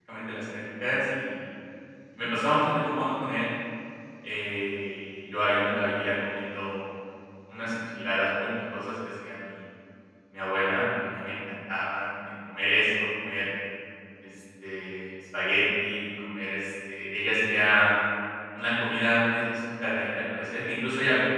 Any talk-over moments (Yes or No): No